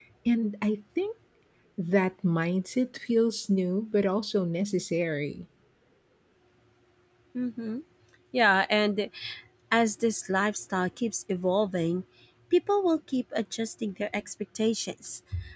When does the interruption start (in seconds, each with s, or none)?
none